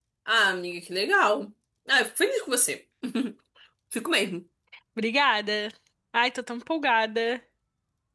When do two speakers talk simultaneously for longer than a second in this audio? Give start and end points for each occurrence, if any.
none

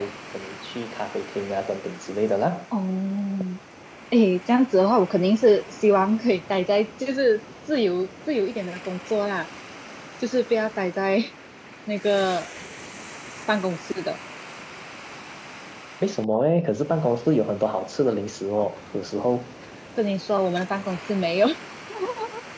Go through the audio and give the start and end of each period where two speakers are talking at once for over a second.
none

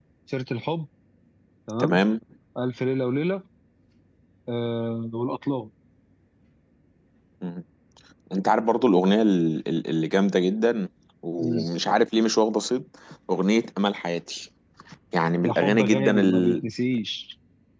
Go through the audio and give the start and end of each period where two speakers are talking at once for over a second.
15.4-16.6

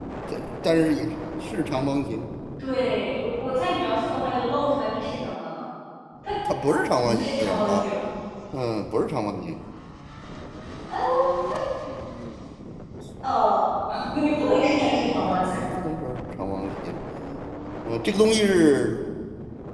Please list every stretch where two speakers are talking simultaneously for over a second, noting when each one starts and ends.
6.6-7.9

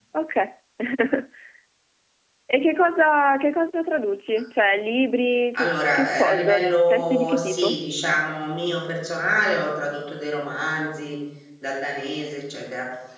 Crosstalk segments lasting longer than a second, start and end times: 5.5-7.8

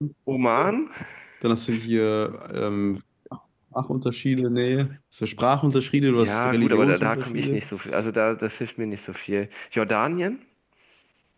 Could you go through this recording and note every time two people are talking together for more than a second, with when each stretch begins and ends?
6.1-7.6

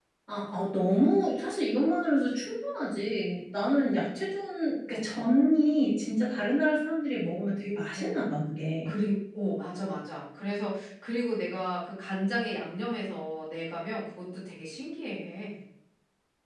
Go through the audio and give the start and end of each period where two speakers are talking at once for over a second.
none

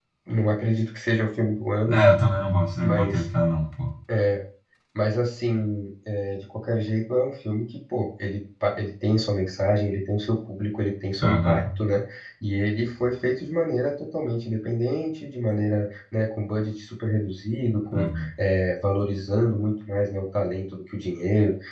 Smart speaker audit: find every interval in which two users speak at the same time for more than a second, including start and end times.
none

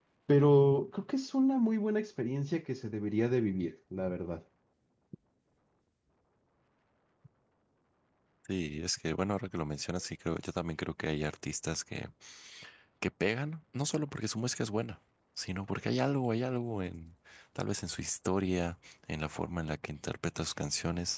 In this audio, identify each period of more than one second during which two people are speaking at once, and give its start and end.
none

